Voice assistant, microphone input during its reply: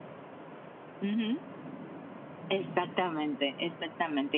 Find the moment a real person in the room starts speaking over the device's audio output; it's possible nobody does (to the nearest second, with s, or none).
none